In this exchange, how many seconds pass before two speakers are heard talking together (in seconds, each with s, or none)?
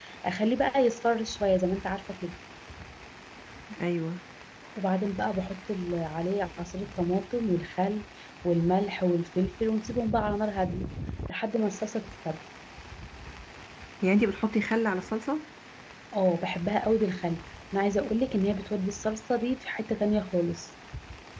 none